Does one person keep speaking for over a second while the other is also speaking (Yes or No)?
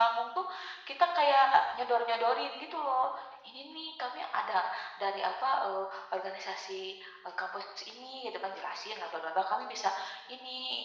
No